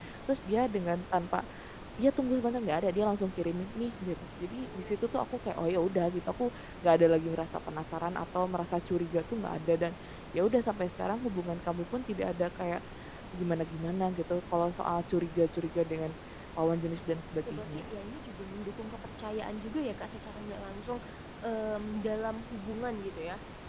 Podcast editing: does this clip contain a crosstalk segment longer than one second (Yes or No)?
No